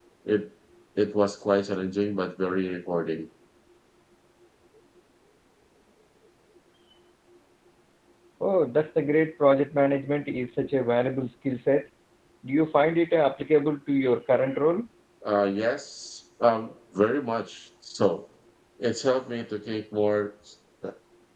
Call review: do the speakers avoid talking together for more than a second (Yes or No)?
Yes